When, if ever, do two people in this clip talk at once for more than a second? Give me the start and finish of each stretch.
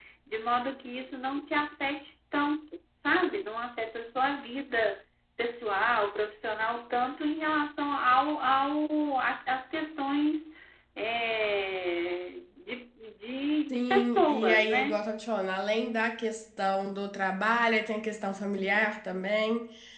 13.7-15.0

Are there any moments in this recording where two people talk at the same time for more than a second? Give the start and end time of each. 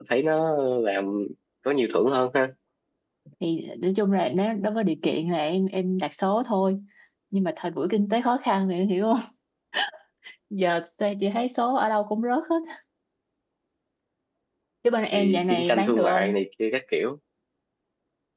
15.1-16.4

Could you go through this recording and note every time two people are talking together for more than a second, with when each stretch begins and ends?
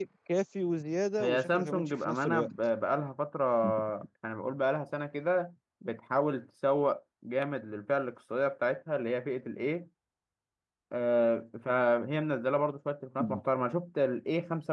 1.2-2.5

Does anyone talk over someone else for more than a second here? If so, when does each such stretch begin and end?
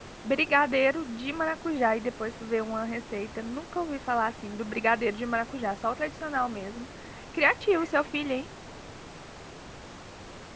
none

